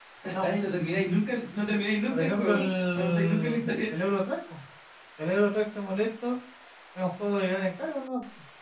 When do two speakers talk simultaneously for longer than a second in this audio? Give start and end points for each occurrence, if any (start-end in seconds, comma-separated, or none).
2.1-3.9